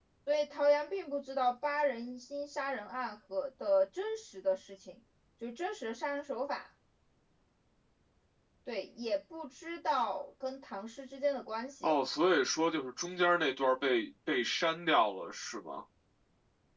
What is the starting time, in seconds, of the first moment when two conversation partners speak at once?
none

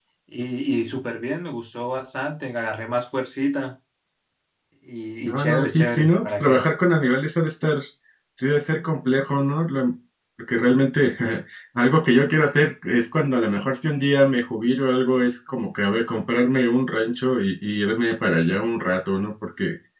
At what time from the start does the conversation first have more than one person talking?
5.2 s

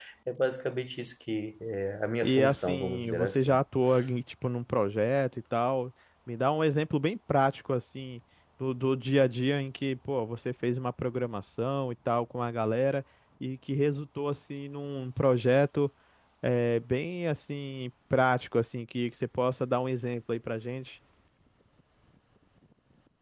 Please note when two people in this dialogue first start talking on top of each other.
2.2 s

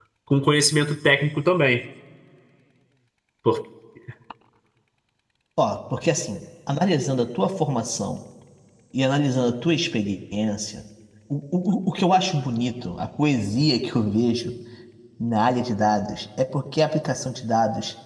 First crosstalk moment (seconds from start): none

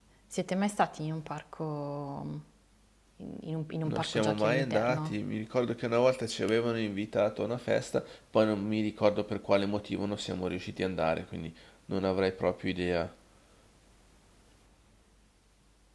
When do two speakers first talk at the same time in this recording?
3.8 s

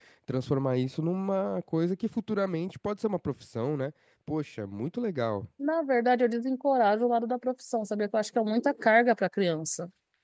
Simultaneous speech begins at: none

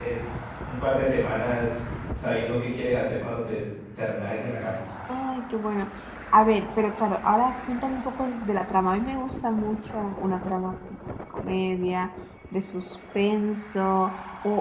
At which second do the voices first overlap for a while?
none

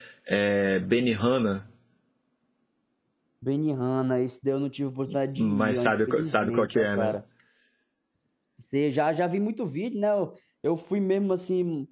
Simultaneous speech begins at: 5.4 s

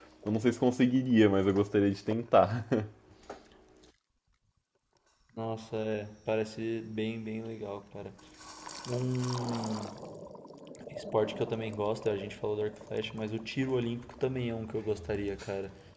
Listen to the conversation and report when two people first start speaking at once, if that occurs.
none

